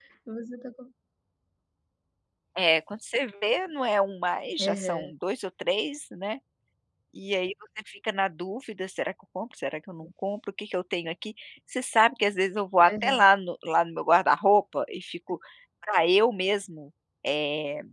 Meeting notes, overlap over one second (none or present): none